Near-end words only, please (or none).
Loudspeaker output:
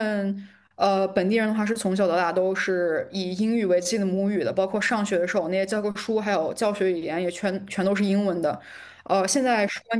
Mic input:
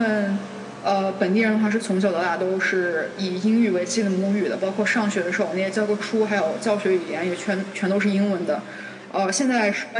none